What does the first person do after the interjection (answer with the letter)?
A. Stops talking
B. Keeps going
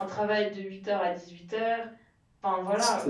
A